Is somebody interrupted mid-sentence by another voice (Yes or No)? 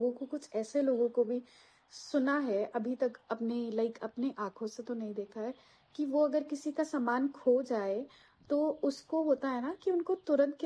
No